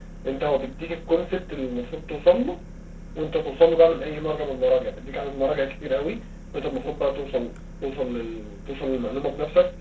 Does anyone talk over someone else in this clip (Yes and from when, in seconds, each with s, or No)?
No